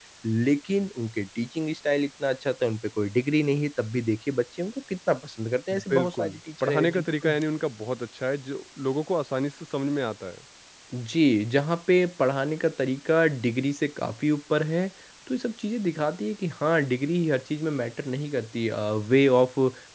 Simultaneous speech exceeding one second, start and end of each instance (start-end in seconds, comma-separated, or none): 5.9-7.3